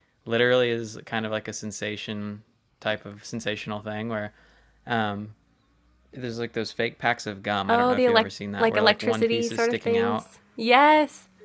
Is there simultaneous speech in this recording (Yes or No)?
Yes